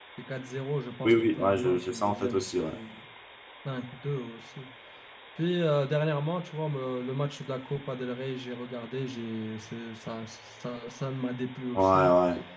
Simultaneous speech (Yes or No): Yes